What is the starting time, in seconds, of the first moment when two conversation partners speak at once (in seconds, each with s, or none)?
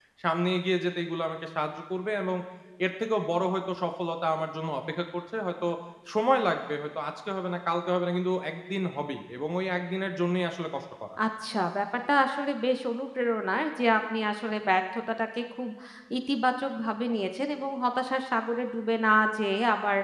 none